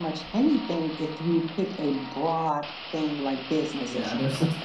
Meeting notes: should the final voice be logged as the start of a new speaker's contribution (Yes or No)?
Yes